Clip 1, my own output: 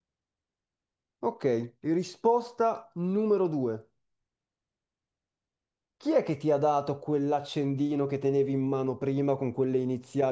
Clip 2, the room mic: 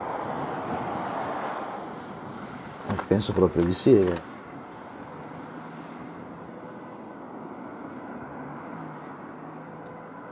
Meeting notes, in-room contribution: present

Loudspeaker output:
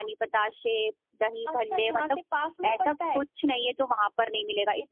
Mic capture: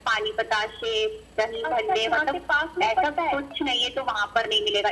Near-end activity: none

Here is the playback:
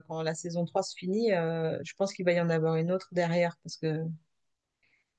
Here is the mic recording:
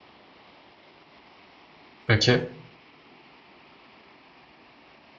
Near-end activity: present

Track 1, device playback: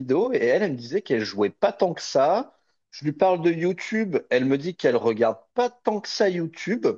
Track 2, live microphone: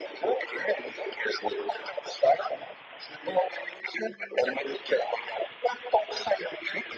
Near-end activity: none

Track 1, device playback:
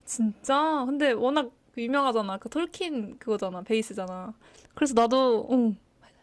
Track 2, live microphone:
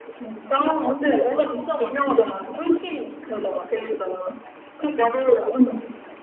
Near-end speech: present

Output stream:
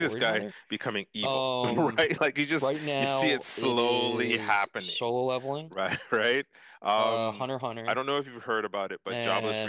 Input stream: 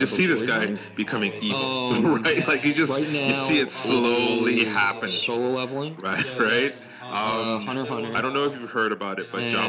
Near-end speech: present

